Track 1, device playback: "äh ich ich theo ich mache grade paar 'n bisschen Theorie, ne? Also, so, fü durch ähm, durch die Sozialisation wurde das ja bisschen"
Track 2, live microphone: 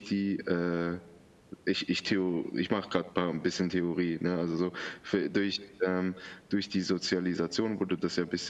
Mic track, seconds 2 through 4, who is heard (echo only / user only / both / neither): echo only